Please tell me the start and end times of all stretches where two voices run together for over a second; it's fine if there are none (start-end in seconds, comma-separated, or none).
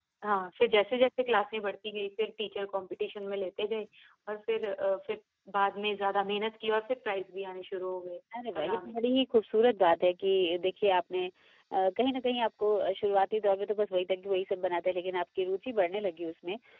none